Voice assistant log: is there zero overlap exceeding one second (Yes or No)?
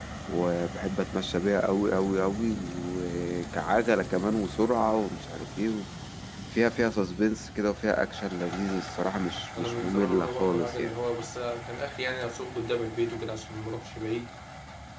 No